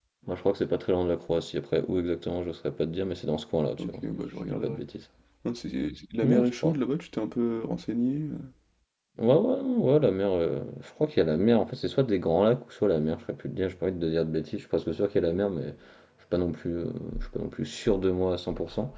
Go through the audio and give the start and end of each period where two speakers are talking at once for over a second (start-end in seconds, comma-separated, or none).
none